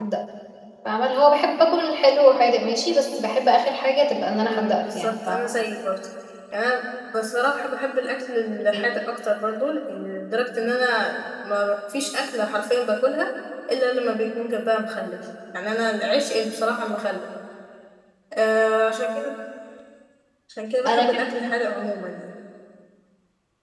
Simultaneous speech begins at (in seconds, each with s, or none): 4.3 s